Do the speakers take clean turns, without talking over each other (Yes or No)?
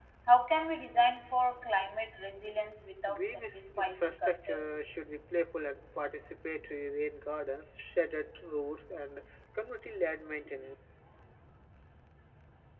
No